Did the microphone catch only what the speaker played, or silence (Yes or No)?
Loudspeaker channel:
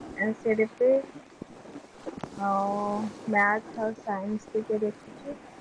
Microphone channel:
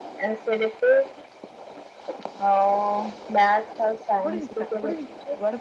No